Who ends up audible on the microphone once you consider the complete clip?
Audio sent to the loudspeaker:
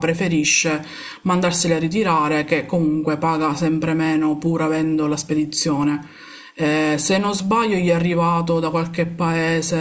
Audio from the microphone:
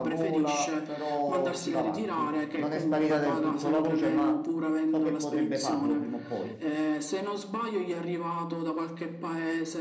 both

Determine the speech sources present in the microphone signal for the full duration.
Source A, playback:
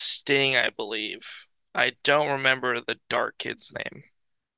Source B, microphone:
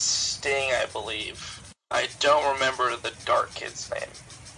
echo only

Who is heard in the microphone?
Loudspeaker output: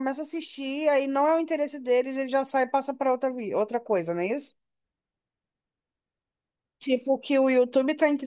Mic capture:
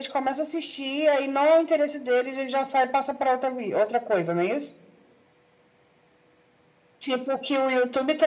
echo only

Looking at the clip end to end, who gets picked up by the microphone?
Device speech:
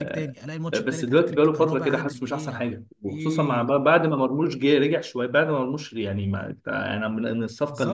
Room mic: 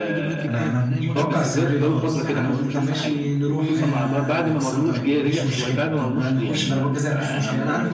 both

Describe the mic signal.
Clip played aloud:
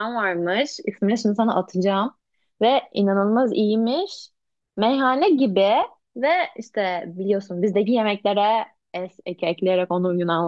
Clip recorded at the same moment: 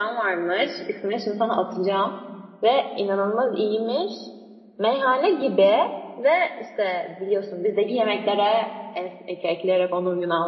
echo only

